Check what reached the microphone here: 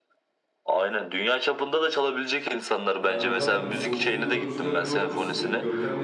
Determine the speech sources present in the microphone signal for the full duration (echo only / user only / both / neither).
both